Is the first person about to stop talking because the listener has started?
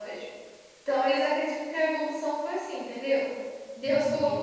No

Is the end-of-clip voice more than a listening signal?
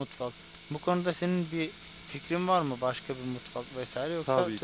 Yes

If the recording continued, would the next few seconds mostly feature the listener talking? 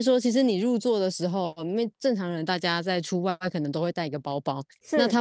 No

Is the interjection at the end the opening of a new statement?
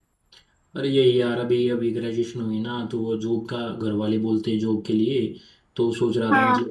No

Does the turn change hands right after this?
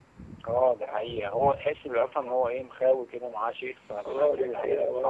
Yes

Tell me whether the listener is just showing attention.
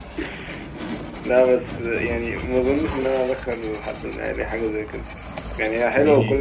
Yes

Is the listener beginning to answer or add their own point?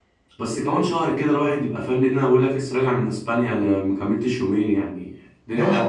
Yes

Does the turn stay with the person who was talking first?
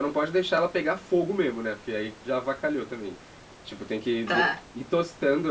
Yes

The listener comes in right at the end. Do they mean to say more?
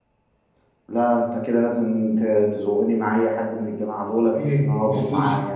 Yes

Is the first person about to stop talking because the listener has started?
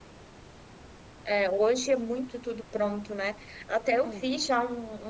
No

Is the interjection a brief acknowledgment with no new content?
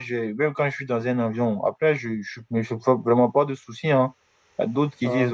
Yes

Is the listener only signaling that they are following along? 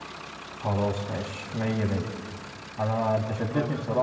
Yes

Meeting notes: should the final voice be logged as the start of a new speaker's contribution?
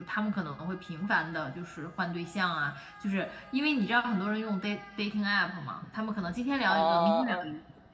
Yes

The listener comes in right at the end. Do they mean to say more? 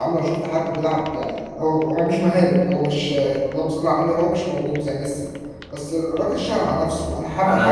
Yes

